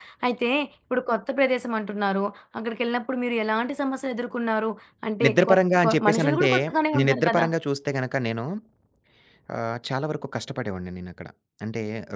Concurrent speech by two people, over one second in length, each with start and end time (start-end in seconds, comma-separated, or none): 5.2-6.5